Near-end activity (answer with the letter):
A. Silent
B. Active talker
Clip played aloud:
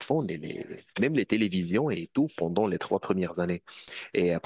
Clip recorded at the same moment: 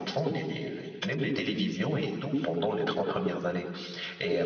A